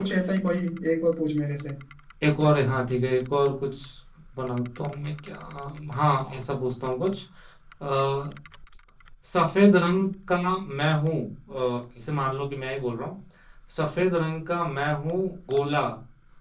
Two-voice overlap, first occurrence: none

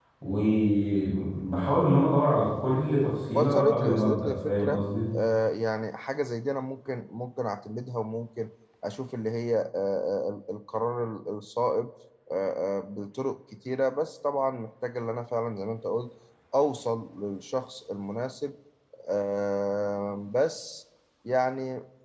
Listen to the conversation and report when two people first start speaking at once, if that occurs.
3.3 s

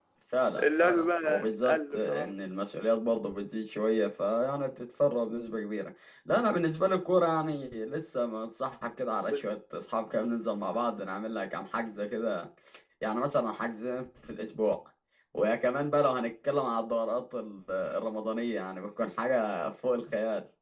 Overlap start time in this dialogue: 0.6 s

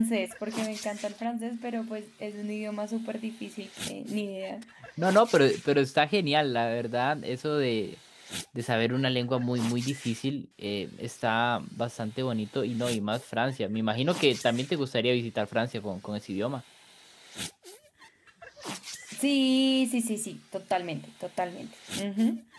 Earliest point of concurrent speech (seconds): none

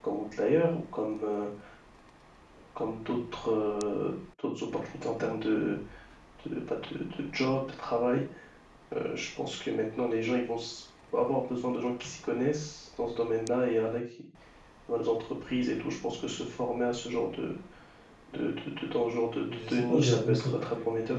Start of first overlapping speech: 19.5 s

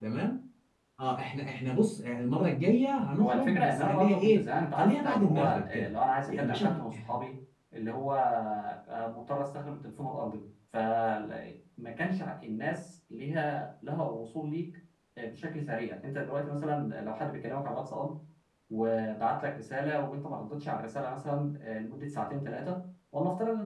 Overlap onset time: 3.0 s

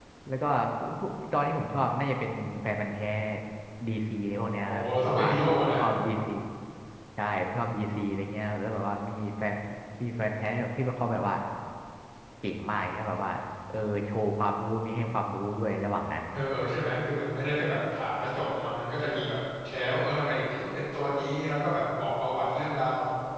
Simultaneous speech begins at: 4.5 s

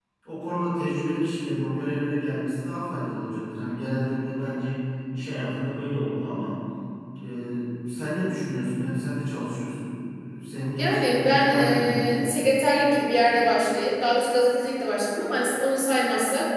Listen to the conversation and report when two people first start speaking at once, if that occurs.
10.8 s

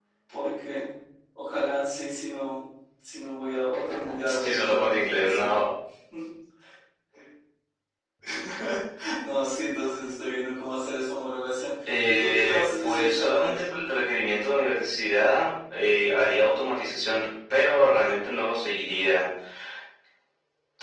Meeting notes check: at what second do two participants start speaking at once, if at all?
4.3 s

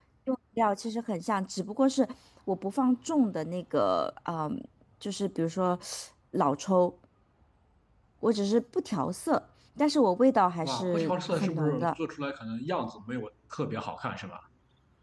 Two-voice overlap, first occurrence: 10.6 s

